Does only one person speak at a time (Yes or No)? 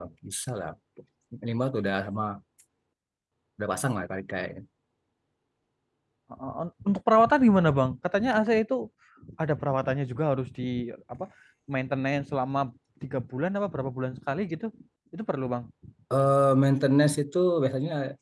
Yes